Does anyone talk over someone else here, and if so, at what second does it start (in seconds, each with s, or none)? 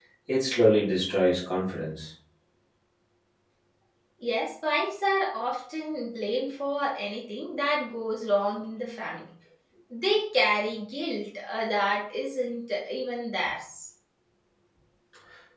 none